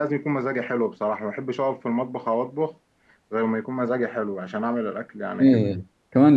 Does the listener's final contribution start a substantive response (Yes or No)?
Yes